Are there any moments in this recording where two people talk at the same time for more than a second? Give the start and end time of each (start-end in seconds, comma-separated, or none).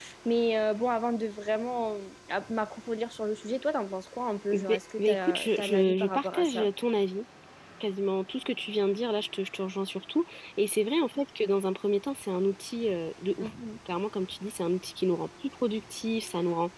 4.5-6.7